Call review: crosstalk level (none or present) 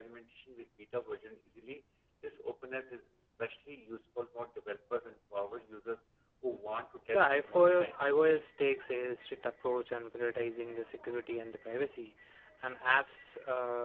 present